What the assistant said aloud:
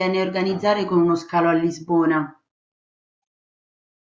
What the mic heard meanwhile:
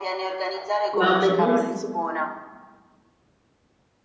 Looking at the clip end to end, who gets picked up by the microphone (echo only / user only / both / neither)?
both